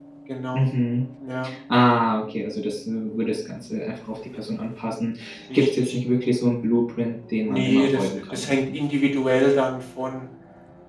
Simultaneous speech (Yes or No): Yes